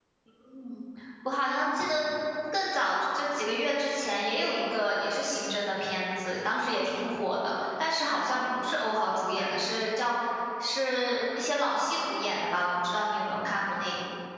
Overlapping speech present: No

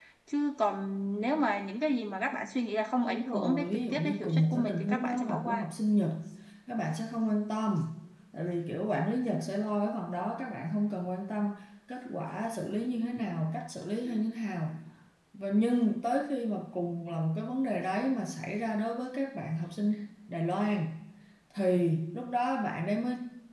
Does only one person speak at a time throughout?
No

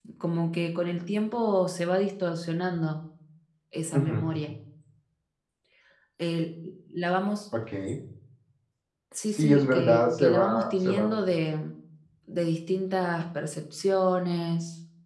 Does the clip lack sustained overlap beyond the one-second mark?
No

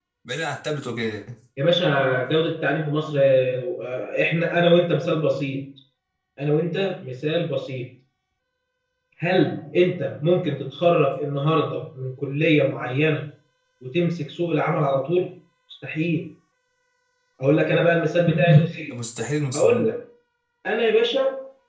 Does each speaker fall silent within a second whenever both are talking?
Yes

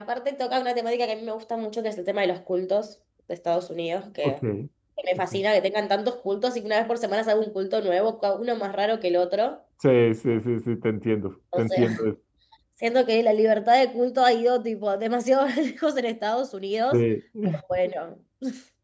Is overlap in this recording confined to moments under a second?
Yes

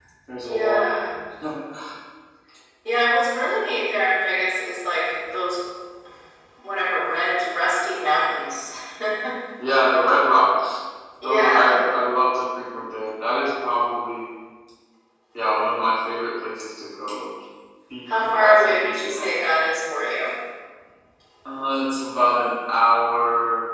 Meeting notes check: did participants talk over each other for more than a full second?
Yes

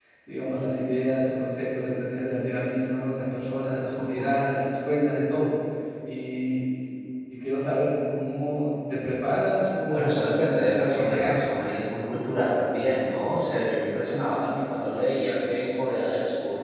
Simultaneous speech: Yes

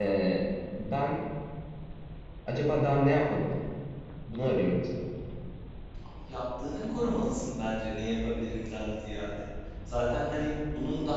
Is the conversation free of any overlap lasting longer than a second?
Yes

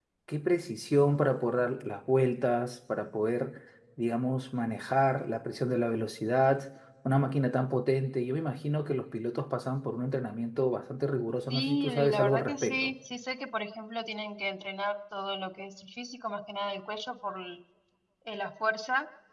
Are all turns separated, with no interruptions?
No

